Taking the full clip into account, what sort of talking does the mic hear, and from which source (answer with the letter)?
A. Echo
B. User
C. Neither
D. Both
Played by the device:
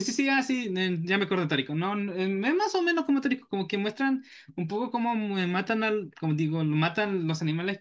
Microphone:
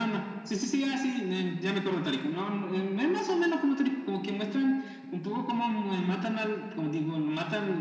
A